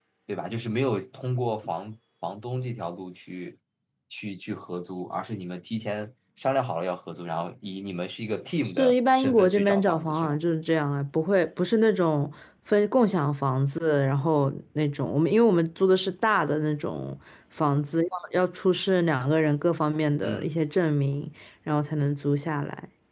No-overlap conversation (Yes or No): No